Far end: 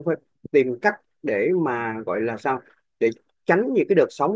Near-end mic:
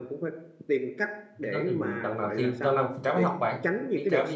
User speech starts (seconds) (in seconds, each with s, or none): 1.4 s